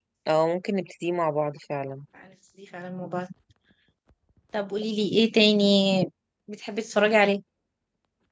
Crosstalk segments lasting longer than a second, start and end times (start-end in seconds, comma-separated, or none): none